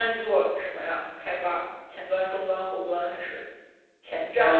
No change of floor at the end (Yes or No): No